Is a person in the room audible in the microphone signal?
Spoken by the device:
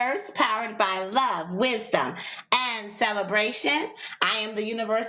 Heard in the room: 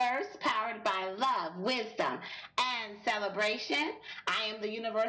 No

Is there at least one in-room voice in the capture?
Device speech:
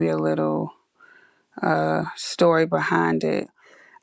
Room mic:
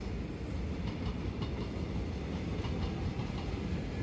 No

